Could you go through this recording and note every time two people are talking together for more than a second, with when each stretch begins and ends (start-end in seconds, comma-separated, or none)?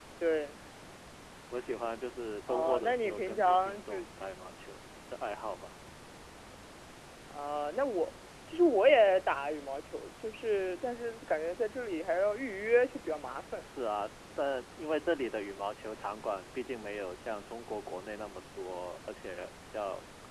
2.5-4.0